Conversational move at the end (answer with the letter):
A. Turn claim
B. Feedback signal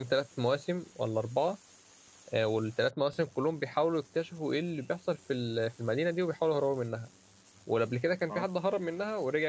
B